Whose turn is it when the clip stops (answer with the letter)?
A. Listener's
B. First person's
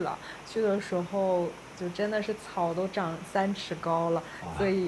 B